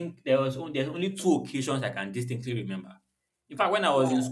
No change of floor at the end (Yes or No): Yes